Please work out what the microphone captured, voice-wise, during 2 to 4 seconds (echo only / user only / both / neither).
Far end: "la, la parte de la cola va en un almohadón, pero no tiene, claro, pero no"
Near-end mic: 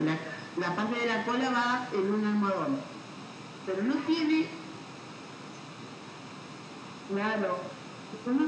echo only